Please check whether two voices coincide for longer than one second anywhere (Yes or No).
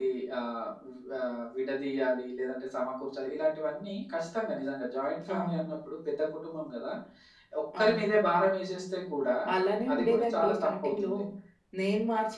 Yes